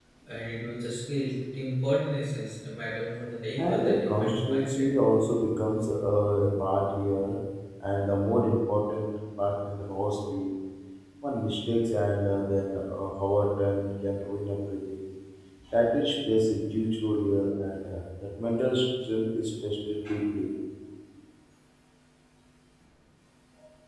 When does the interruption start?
4 s

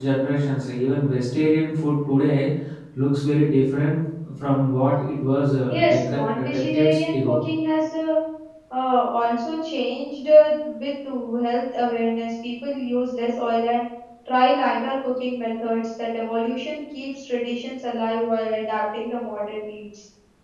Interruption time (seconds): 6 s

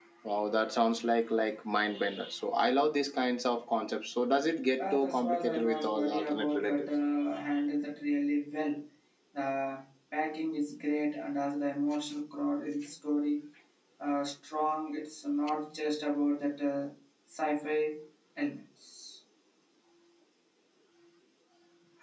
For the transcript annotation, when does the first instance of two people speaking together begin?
5 s

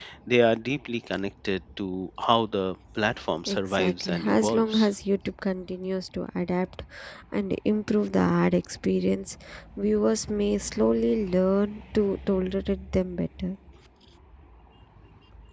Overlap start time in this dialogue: 3 s

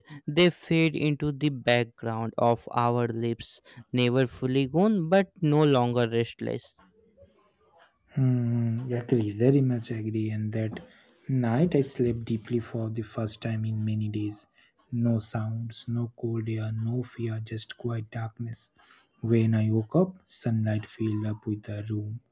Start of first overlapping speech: none

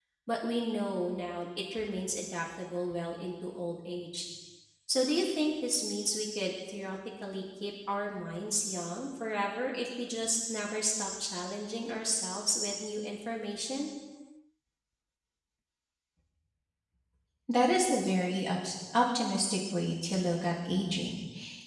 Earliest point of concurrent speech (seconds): none

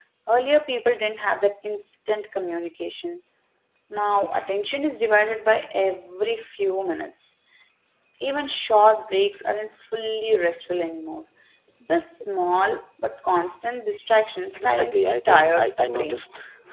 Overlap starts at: 15 s

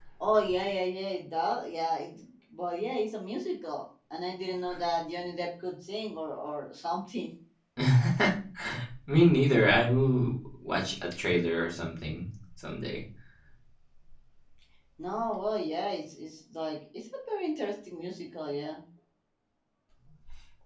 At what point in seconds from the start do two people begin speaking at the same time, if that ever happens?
none

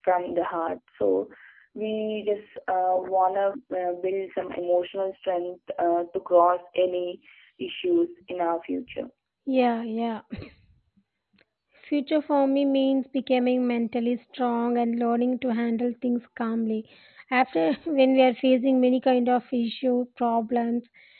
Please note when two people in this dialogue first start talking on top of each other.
none

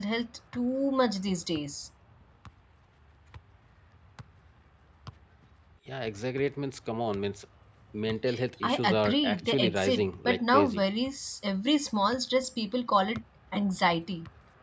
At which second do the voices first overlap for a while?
9 s

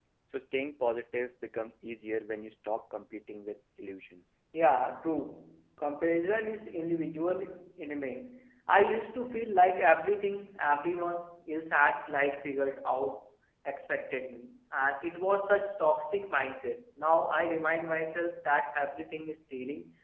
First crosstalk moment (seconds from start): none

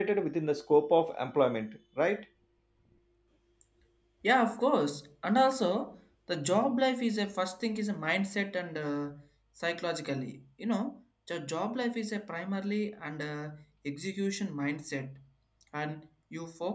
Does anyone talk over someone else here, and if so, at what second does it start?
none

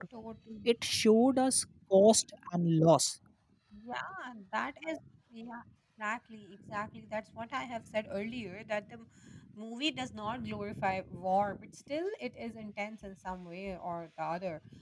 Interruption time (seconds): none

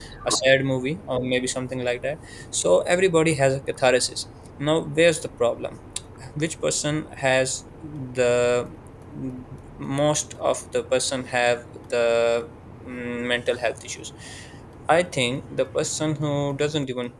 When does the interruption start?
none

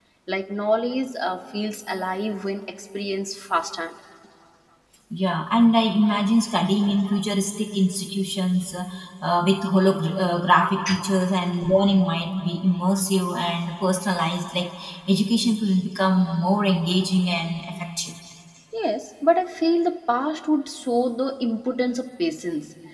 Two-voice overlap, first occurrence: none

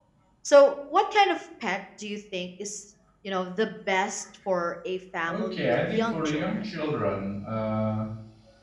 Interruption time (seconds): 5 s

